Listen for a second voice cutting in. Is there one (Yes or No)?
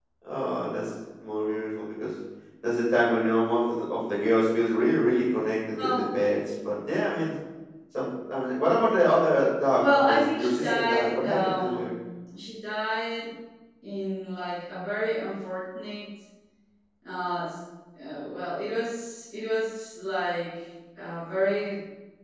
Yes